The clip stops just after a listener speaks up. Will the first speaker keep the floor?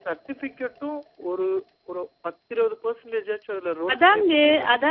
No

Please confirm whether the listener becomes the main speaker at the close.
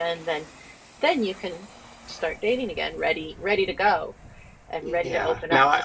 Yes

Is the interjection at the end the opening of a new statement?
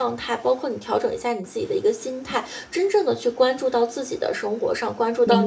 No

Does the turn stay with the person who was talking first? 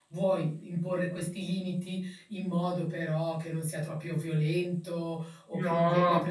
Yes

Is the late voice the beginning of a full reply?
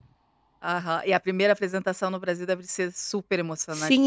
Yes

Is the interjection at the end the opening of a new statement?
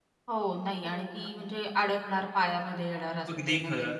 Yes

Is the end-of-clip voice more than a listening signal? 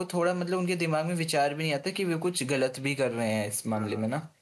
Yes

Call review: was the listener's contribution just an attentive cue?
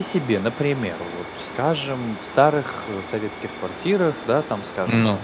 Yes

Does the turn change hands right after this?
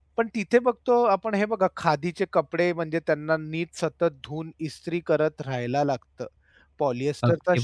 No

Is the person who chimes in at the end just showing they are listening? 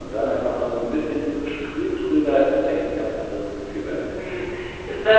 No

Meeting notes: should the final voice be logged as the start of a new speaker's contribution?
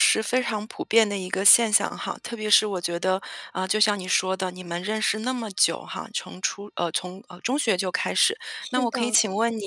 No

